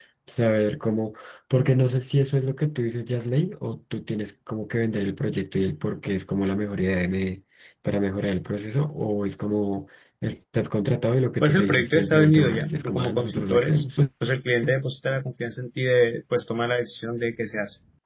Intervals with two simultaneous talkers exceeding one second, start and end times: 11.4-13.8

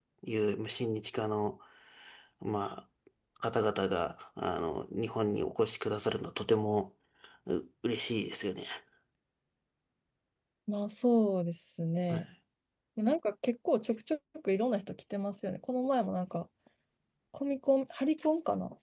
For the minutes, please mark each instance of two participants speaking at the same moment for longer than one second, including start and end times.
none

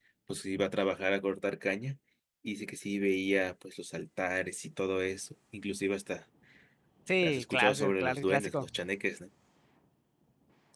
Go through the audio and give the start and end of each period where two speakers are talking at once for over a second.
7.2-8.7

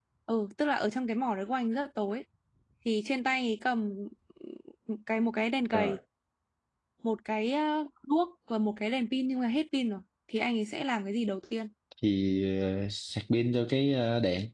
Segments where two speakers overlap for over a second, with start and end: none

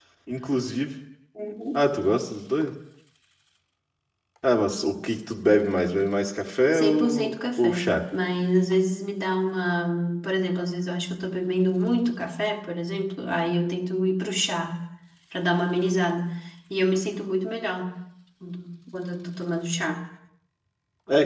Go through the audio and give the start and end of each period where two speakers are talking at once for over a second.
6.7-8.0

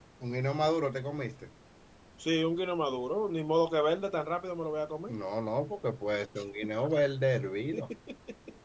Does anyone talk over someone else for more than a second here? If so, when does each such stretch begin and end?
none

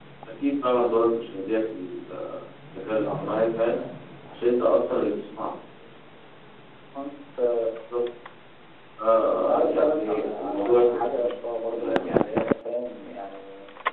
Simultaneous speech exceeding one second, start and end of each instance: 9.3-11.3

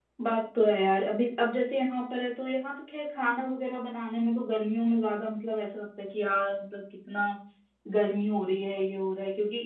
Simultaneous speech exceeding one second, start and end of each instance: none

